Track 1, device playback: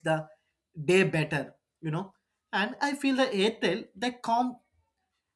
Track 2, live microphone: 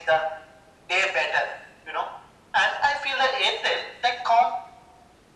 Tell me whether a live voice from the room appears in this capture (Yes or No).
No